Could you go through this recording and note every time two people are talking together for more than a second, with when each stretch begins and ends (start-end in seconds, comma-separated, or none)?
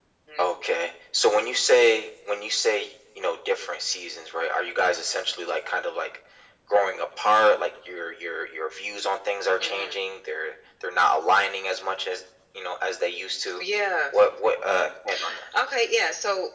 none